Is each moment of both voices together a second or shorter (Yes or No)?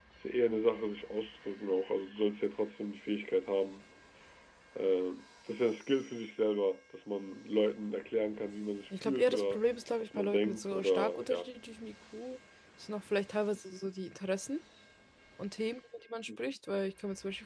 No